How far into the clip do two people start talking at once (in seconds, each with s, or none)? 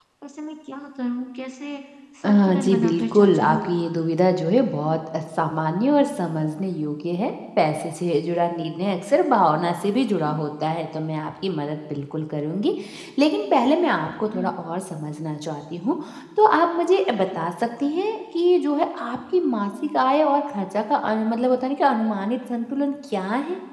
2.3 s